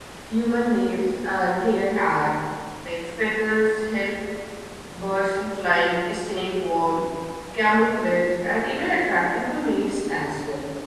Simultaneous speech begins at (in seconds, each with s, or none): none